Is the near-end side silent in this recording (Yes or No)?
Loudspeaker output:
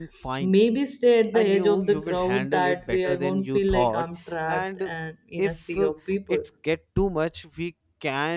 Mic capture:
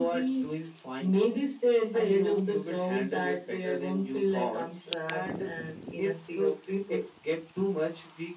Yes